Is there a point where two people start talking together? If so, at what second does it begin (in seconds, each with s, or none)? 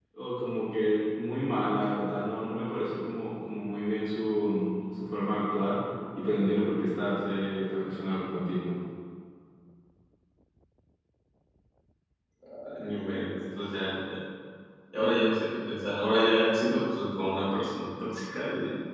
none